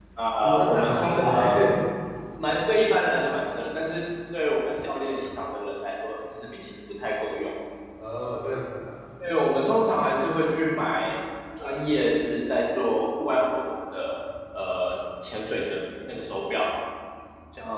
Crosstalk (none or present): present